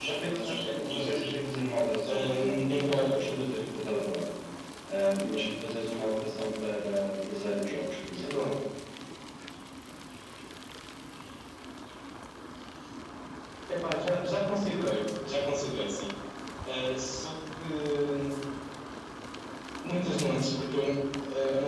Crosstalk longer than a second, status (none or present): present